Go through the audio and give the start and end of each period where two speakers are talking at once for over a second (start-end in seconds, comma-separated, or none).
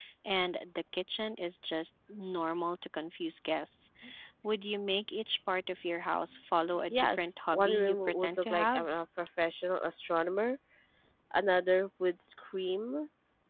6.9-8.9